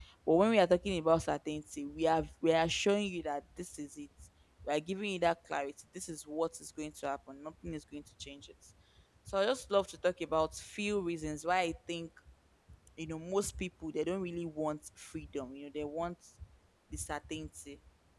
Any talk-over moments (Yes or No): No